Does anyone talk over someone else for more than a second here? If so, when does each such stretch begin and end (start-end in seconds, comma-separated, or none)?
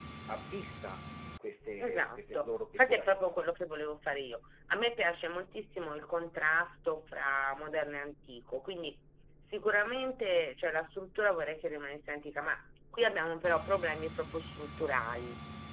1.8-3.3